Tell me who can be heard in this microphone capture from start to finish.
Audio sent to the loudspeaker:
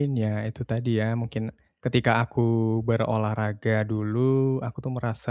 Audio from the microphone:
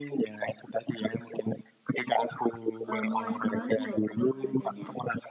both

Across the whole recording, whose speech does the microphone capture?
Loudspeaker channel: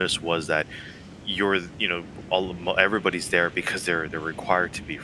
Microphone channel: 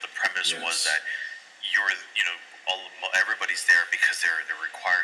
both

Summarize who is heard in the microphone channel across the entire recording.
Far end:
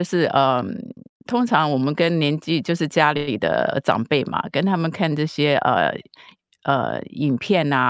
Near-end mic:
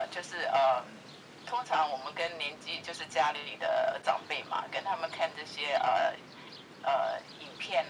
echo only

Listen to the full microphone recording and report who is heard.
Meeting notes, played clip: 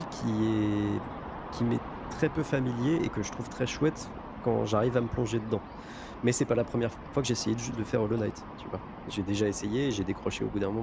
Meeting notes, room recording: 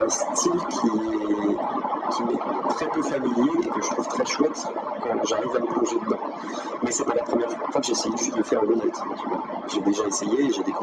echo only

